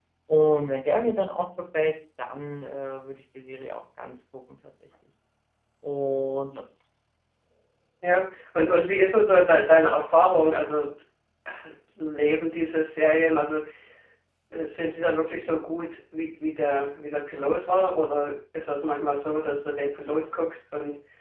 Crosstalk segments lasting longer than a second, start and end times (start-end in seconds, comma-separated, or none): none